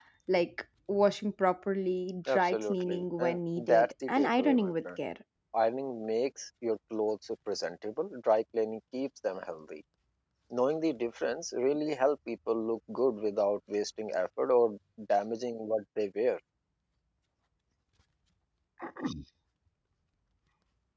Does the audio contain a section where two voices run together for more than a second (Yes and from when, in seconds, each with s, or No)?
Yes, from 2.3 s